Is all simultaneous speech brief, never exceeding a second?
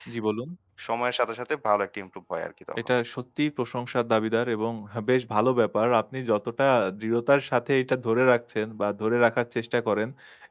Yes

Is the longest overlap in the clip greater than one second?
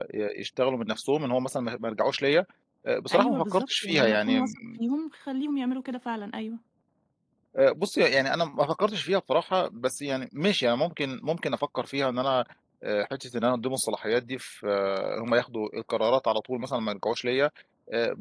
Yes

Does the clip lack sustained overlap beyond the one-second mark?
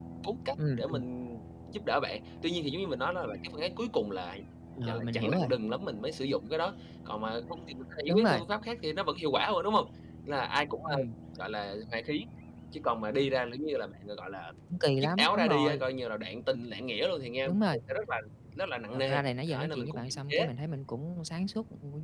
No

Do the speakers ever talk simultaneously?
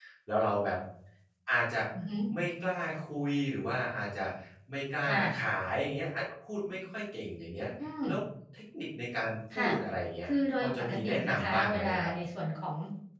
Yes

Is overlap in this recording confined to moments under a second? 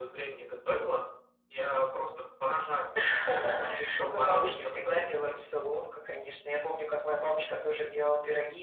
No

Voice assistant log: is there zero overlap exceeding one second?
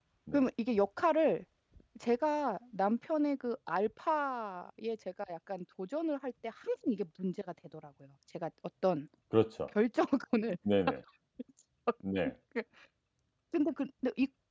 Yes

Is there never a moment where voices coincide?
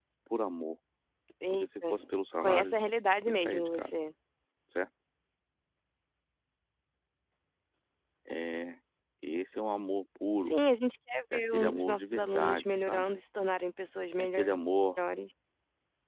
No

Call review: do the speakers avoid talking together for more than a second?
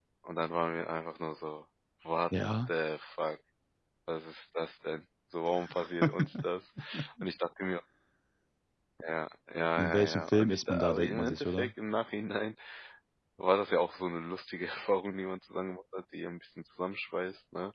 No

